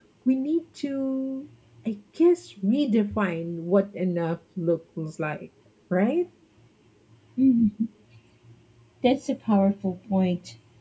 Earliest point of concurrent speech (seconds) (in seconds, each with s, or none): none